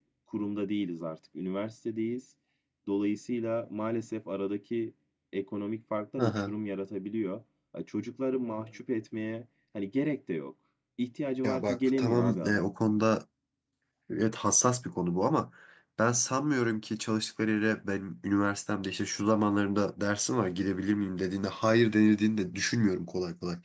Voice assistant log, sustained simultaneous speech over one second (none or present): present